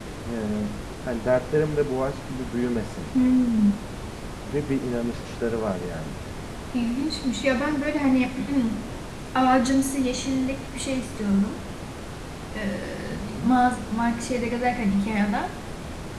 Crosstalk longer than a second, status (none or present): none